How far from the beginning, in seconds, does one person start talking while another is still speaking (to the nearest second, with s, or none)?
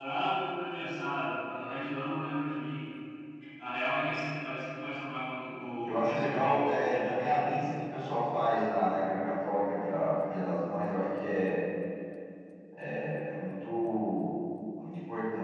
6 s